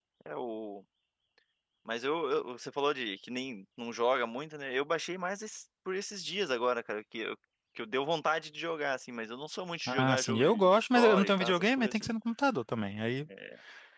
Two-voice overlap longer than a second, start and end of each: 9.9-12.1

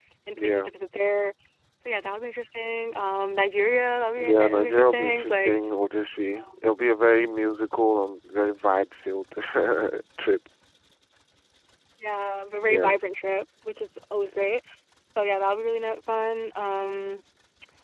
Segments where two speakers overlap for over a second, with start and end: 4.2-5.6

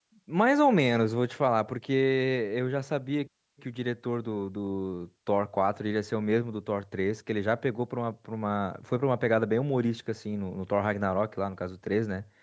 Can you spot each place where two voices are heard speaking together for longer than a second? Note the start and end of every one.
none

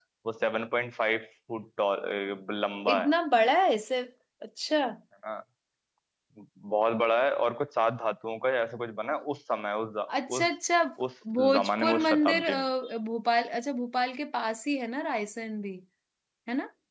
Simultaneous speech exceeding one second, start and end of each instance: 11.3-12.7

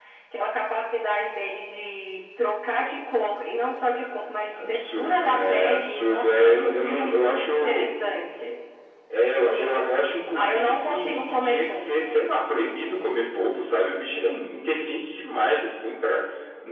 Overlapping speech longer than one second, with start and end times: 4.5-7.9, 10.3-12.2

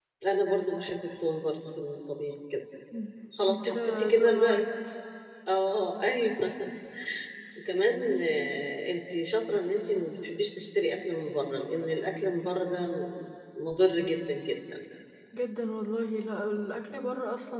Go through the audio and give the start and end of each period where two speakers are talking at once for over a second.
3.5-4.7

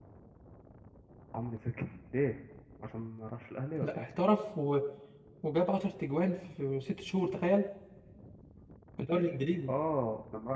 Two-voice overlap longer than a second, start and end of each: none

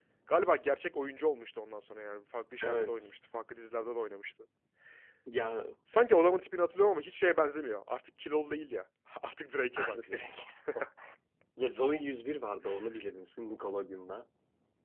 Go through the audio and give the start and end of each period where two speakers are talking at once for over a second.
none

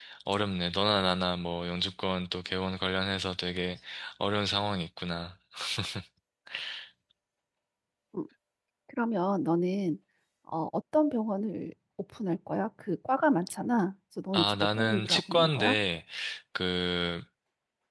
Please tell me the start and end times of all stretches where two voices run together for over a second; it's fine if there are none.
14.3-15.8

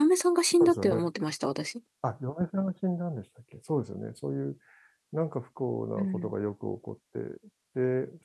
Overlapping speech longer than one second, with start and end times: none

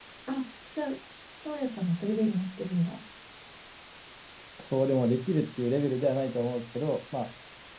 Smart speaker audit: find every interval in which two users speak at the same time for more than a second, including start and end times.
none

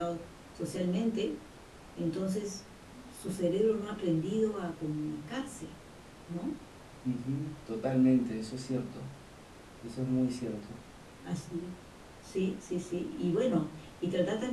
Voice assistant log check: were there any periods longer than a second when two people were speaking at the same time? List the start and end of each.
none

